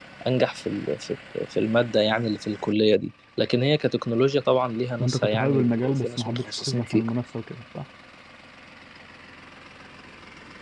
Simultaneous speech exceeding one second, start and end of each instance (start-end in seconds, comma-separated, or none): 5.0-6.8